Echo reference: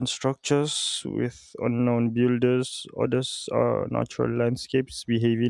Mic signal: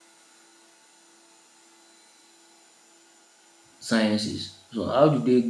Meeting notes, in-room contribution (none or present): present